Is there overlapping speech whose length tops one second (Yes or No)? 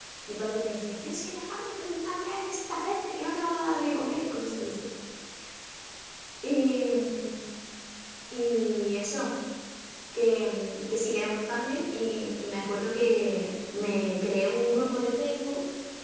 No